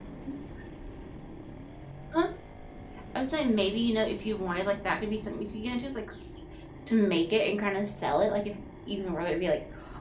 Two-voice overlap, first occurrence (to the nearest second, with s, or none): none